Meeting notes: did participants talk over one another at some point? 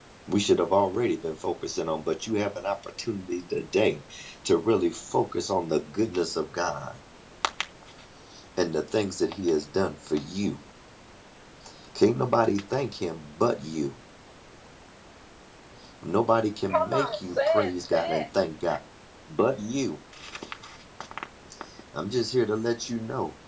Yes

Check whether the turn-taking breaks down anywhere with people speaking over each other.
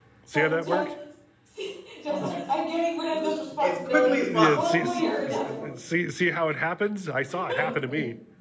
Yes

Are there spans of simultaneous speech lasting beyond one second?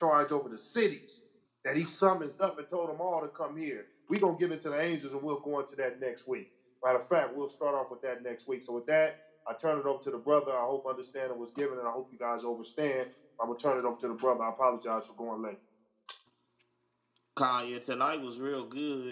No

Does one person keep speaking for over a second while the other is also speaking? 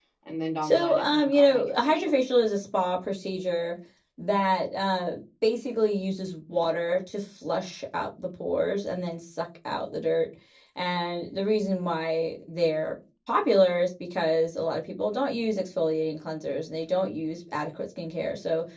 Yes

